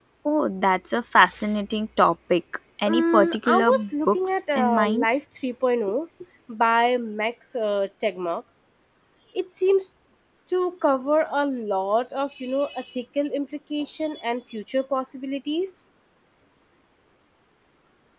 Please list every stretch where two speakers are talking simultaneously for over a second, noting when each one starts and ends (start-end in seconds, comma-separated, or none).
2.9-5.0